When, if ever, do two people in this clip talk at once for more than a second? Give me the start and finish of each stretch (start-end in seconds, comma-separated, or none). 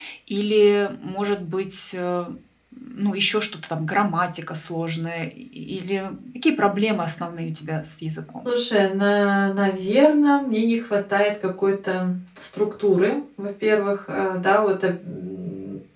none